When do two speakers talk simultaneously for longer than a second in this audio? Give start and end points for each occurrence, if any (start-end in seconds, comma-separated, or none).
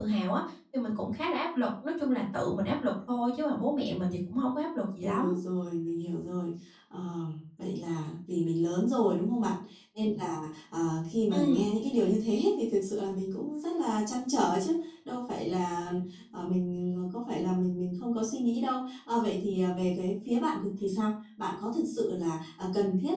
none